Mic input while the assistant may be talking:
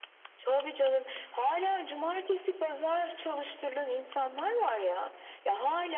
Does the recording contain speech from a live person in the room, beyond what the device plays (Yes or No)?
No